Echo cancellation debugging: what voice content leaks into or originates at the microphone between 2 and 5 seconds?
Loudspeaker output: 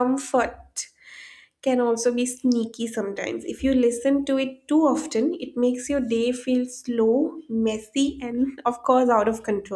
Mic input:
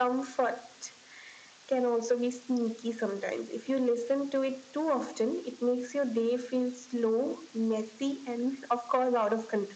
echo only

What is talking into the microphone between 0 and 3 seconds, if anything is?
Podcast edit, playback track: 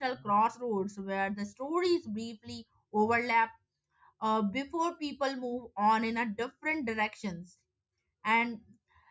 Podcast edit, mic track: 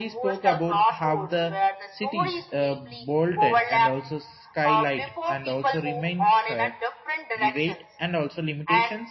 both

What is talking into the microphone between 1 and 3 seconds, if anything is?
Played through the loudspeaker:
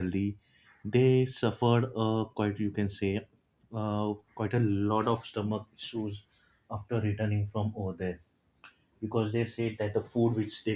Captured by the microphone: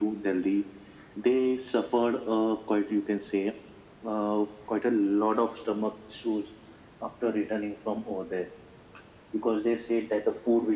echo only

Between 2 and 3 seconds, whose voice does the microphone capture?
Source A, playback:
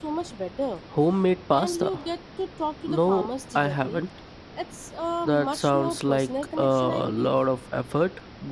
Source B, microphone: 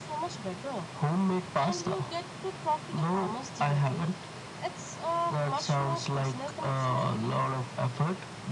echo only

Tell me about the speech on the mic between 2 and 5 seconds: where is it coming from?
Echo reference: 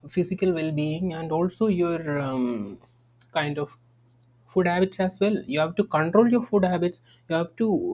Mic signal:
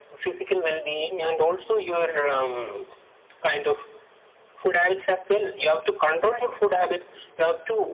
echo only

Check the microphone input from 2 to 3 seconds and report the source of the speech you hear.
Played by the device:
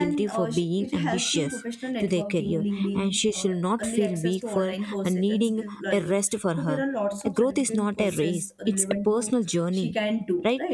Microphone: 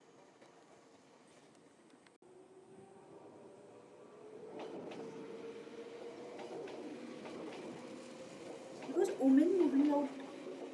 neither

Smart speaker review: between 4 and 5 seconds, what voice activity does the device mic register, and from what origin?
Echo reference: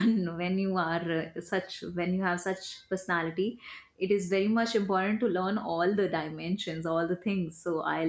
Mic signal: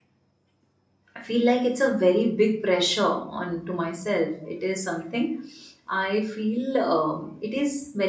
user only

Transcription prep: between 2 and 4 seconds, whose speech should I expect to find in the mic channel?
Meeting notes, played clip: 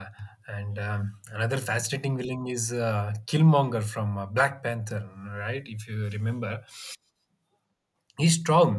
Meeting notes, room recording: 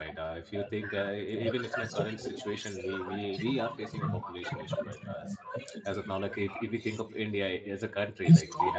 both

